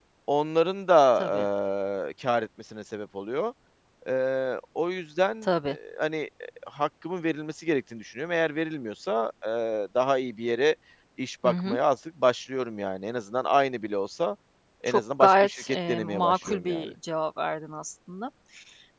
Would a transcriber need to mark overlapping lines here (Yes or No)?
Yes